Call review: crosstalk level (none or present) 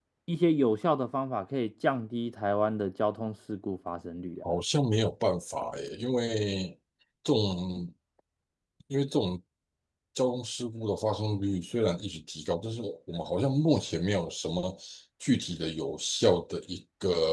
none